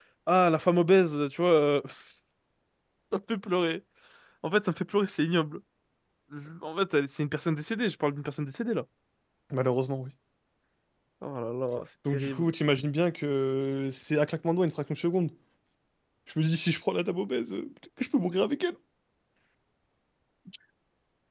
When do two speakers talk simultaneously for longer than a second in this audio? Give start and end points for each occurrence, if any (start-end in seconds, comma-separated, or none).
none